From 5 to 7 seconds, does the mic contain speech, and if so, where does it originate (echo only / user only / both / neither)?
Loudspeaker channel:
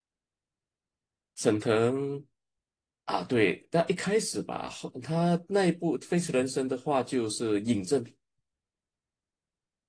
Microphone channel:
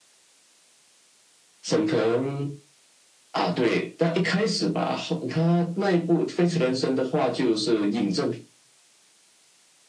echo only